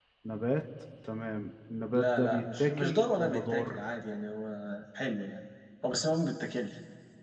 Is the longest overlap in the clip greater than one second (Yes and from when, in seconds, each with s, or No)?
Yes, from 1.9 s